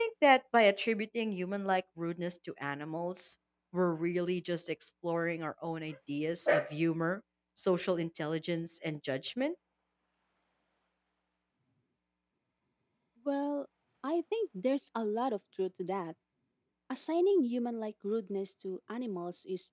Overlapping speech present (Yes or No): No